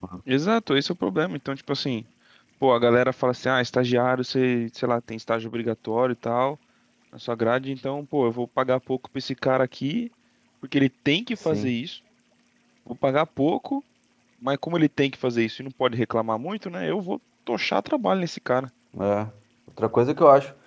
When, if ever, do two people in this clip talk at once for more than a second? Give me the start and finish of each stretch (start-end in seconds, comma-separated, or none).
none